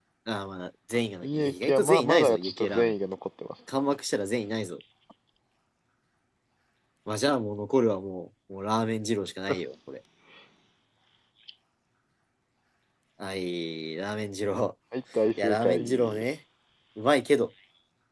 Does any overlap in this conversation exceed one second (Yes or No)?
Yes